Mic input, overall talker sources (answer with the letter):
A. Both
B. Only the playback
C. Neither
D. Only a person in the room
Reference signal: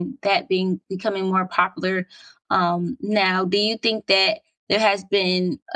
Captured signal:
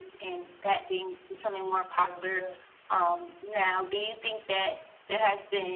A